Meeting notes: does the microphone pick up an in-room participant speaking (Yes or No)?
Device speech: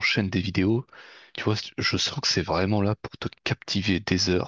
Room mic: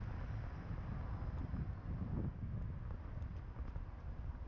No